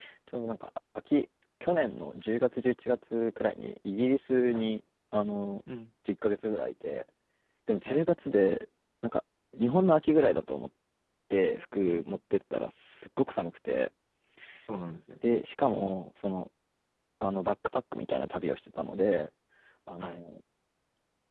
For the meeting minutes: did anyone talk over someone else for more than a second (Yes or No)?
No